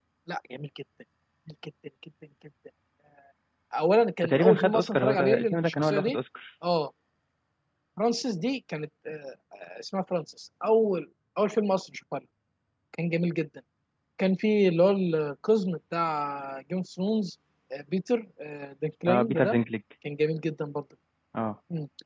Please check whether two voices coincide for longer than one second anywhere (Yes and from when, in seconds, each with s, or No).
Yes, from 4.2 s